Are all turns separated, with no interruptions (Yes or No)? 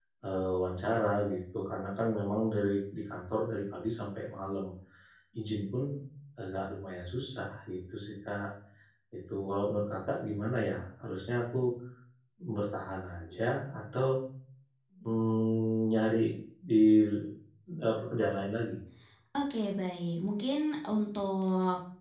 Yes